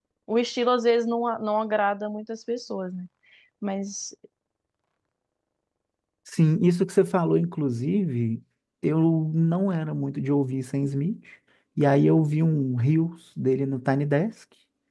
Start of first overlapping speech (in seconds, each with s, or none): none